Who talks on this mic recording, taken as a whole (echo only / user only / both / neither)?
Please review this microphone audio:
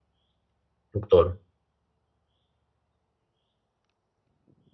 user only